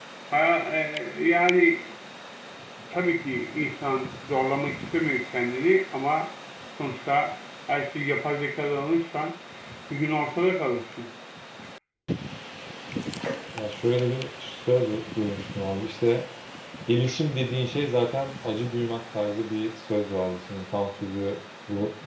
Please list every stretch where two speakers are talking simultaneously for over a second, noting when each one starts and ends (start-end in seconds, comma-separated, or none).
none